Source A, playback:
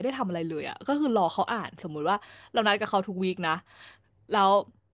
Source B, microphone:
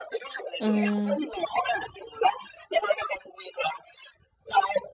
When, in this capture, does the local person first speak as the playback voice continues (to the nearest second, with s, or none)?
1 s